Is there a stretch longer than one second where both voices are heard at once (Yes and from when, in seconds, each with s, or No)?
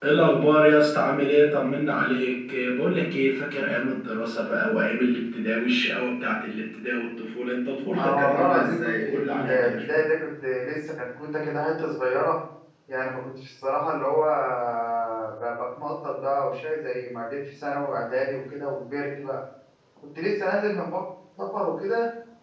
Yes, from 8.0 s